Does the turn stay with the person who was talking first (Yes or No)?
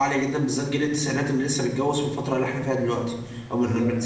Yes